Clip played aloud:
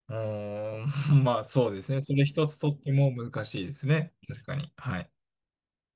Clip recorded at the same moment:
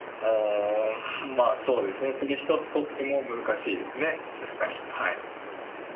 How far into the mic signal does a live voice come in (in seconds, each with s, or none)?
none